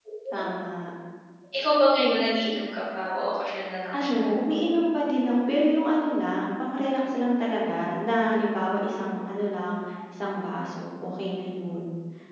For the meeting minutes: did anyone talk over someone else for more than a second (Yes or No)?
No